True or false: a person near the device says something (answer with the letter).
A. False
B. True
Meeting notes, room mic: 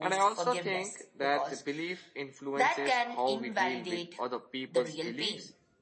B